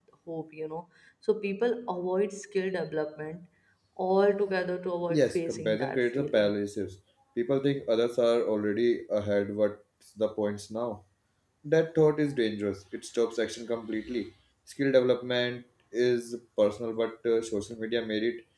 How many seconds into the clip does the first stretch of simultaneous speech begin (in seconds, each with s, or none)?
5.1 s